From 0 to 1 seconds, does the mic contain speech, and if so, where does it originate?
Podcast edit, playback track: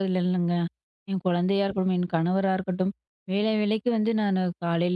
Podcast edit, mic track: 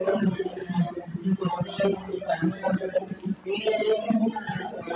echo only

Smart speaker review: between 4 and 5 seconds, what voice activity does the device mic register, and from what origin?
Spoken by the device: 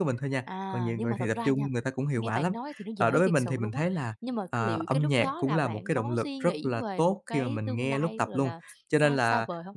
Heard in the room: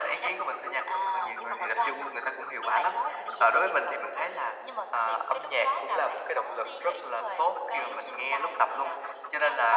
echo only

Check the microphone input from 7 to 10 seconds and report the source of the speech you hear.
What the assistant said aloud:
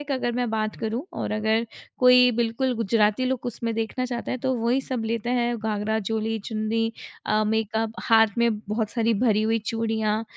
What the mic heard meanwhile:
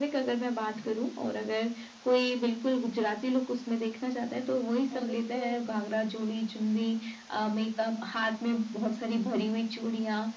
echo only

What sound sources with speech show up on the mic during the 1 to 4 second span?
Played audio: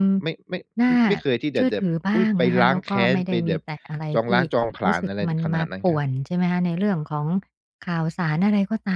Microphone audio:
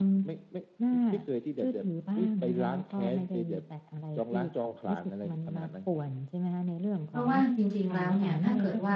echo only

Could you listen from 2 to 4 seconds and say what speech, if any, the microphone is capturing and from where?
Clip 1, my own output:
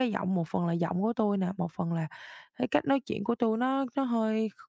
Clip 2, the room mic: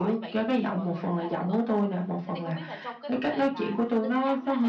both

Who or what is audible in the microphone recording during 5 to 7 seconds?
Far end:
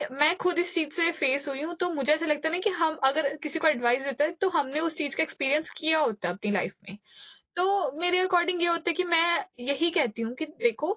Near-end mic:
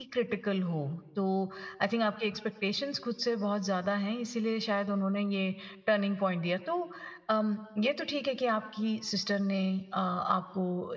user only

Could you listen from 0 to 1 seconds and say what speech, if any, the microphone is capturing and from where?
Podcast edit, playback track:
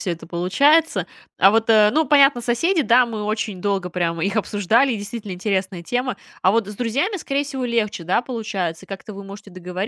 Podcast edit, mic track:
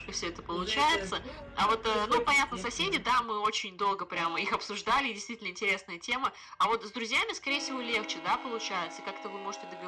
both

